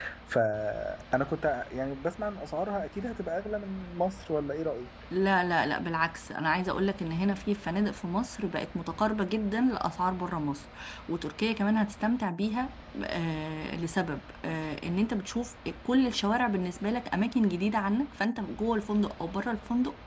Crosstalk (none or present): none